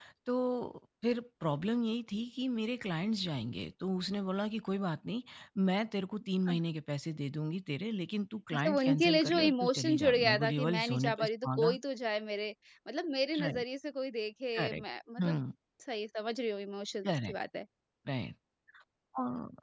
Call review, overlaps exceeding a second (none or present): present